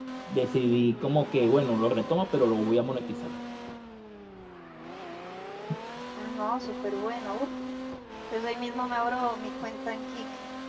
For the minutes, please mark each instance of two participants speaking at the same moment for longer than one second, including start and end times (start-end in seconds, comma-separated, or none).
none